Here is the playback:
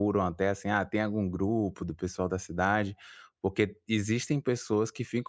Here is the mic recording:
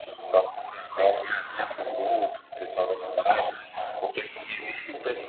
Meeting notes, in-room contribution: none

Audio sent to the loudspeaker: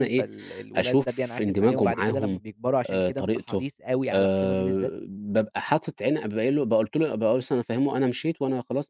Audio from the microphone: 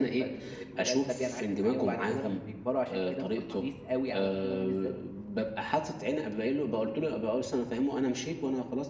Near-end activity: none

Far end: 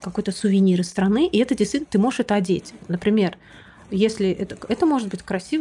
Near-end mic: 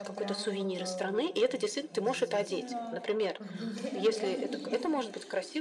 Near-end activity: present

